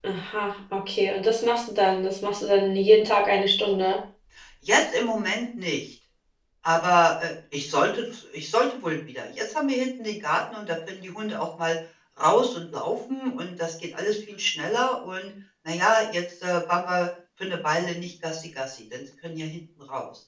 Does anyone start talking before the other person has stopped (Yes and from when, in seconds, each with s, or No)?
No